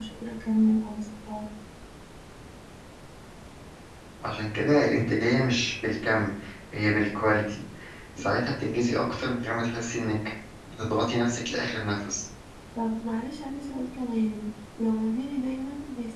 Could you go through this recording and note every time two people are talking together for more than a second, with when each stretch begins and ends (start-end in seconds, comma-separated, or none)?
none